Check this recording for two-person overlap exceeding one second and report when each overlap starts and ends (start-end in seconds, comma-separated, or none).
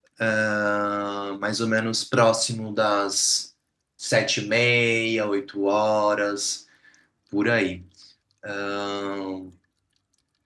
none